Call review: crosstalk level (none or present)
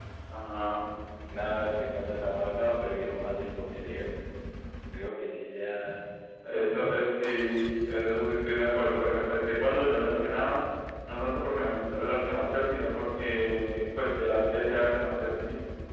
none